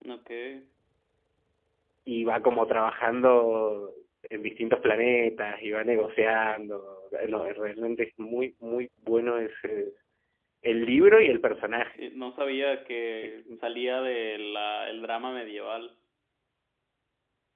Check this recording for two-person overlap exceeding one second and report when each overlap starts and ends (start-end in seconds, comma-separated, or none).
none